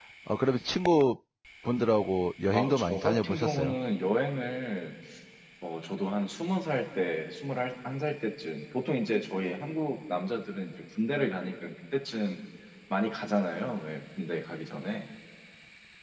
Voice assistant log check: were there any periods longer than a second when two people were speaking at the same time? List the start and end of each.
2.5-3.8

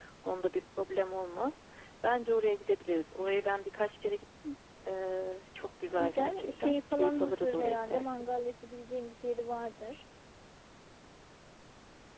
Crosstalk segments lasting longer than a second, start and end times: 6.0-8.1

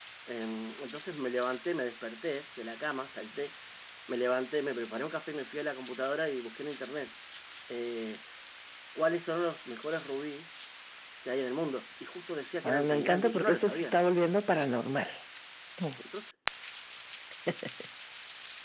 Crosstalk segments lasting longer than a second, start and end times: 12.6-14.0

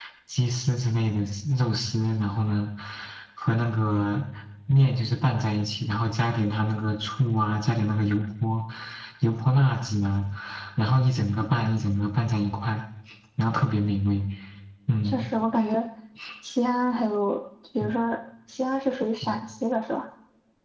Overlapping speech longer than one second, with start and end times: none

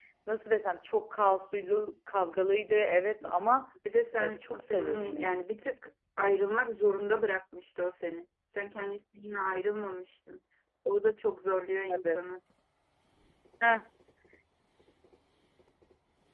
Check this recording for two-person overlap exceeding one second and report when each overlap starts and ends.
4.2-5.4

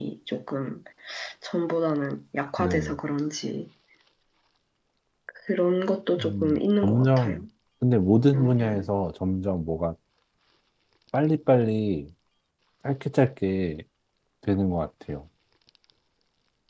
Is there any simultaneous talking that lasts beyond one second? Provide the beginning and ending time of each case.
6.2-7.4

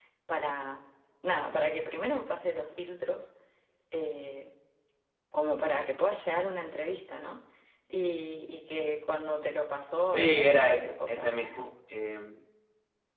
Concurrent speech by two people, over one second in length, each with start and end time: 10.1-11.3

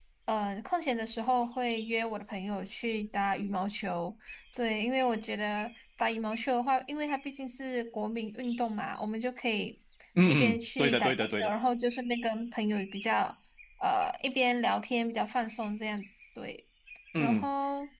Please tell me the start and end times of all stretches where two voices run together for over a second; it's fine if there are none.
10.3-11.5

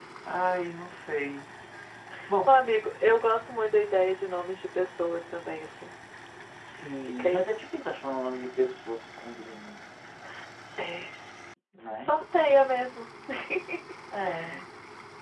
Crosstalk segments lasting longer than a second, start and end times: none

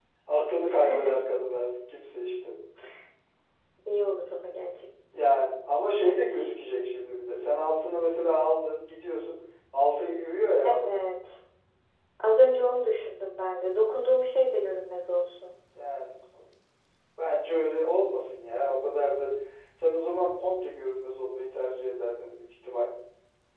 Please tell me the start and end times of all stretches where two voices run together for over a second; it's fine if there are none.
none

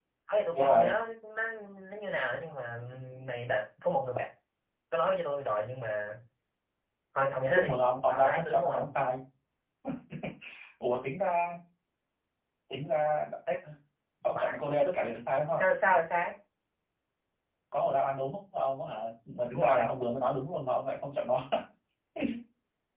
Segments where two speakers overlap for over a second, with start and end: 7.5-9.0

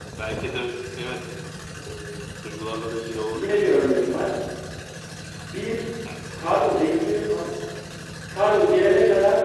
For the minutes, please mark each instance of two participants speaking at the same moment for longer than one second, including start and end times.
none

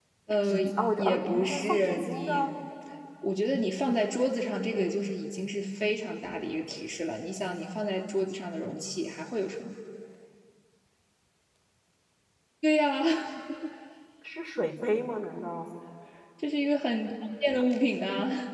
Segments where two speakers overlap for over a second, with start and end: 1.0-2.5

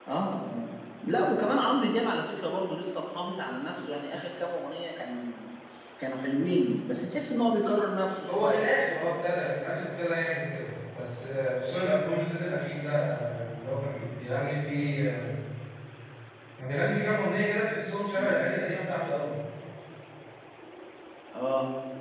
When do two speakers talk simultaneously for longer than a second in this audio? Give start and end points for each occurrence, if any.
none

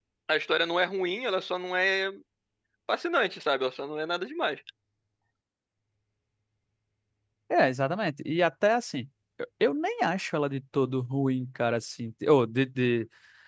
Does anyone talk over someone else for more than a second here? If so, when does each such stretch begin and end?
none

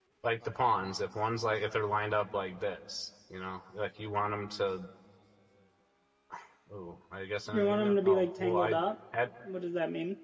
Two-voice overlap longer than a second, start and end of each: 7.5-8.7

